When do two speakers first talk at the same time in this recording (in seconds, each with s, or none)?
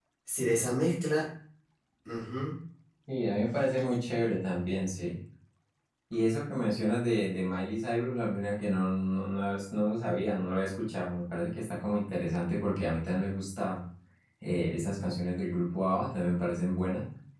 none